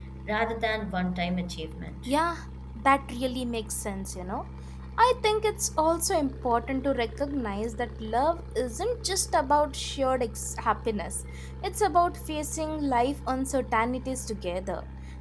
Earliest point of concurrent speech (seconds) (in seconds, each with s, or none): none